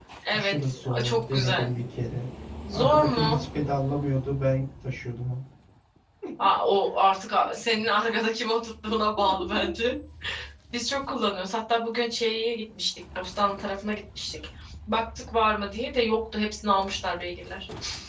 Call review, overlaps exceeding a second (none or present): present